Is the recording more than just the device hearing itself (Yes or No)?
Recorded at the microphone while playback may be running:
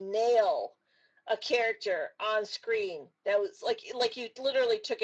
No